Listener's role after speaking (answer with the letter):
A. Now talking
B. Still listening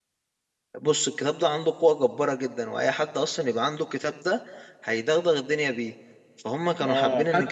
A